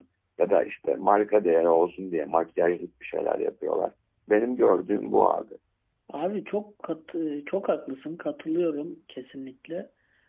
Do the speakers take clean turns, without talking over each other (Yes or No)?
Yes